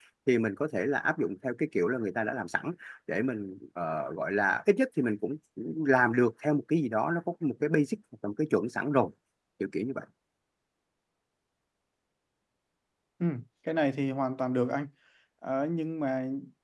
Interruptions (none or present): none